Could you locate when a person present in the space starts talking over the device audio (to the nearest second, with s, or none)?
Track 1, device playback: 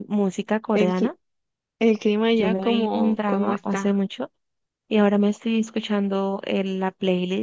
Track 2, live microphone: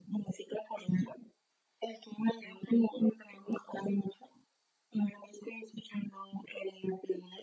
none